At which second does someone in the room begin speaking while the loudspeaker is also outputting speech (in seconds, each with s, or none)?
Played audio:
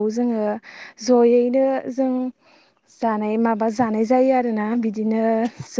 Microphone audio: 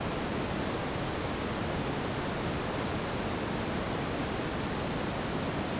none